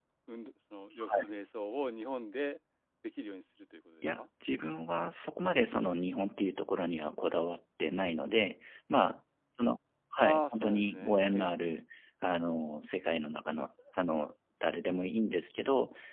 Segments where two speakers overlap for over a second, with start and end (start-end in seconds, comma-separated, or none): 10.2-11.6